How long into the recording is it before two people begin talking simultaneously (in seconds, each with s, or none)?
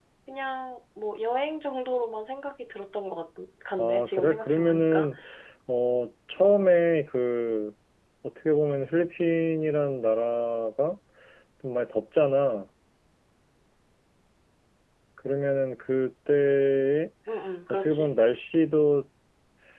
3.8 s